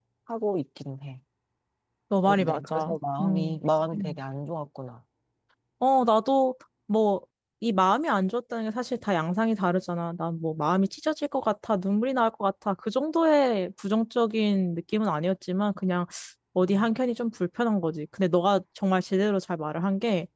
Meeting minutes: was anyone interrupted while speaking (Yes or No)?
Yes